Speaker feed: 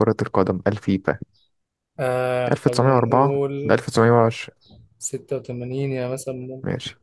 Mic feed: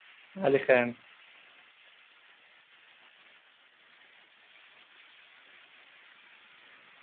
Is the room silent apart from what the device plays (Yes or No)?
No